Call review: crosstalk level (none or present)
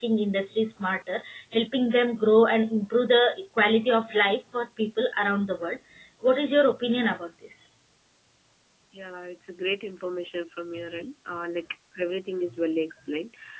none